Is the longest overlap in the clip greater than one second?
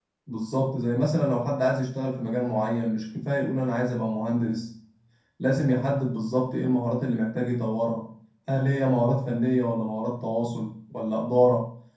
No

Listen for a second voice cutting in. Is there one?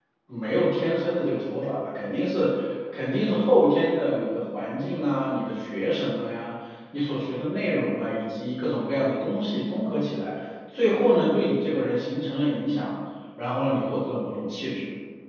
No

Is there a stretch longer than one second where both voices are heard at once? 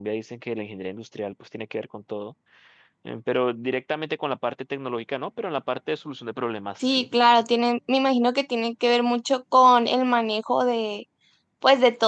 No

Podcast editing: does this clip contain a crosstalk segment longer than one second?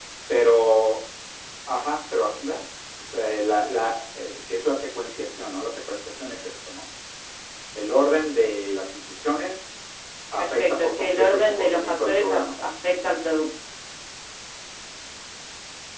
Yes, from 10.4 s

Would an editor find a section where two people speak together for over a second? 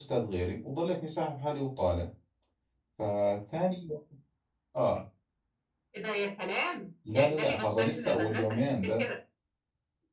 Yes, from 7.0 s

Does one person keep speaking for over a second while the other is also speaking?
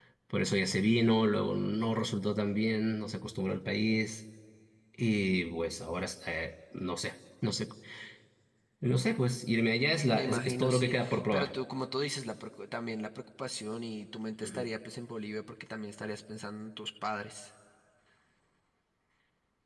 Yes, from 10.1 s

